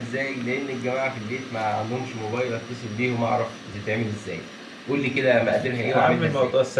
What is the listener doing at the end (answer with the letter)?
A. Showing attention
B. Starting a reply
B